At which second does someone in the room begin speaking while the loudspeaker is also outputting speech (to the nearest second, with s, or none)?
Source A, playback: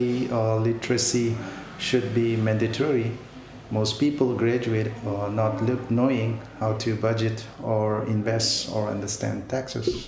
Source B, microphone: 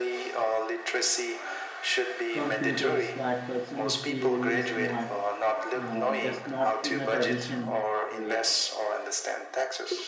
2 s